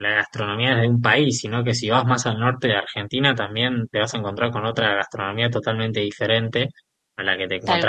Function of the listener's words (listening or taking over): listening